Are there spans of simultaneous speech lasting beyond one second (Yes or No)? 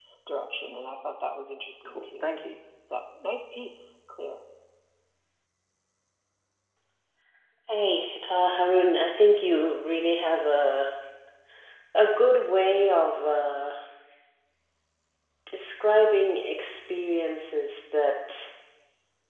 No